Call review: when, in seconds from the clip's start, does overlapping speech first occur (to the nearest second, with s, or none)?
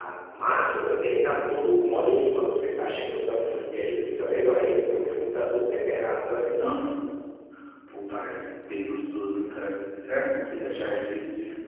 none